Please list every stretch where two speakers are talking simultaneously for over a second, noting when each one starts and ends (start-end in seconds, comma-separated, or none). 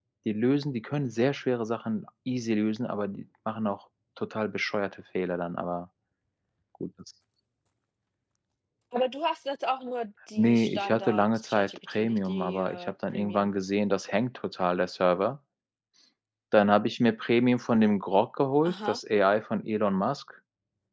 10.4-13.5